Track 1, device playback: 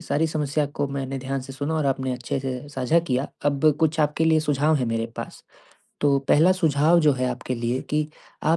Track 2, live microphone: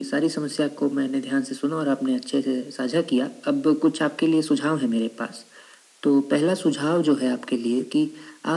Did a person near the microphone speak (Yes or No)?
No